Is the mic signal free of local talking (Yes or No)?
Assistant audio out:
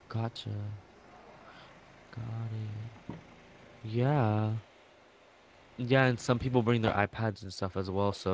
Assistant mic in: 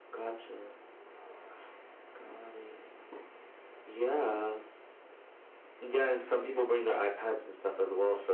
Yes